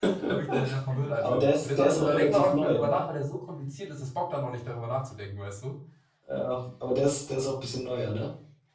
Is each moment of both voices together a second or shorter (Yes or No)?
No